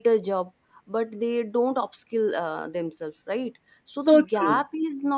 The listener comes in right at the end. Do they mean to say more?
No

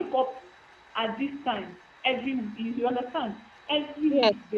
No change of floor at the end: Yes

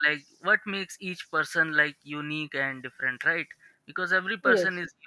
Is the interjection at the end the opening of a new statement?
No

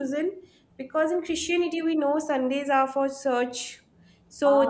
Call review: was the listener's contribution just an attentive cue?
Yes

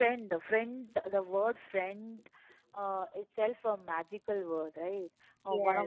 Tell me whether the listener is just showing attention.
Yes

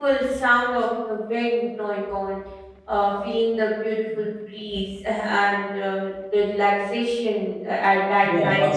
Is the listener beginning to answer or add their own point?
Yes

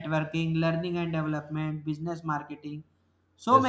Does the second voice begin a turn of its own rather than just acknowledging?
No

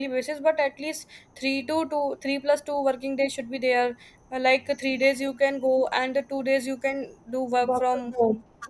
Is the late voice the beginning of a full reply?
Yes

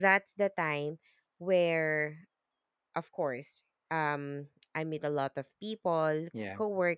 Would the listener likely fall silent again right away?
Yes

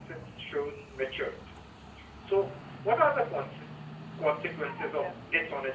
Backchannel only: Yes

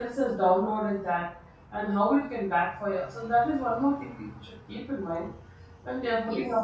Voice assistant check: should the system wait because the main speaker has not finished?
Yes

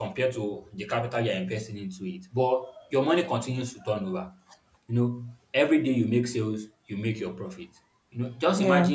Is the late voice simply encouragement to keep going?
Yes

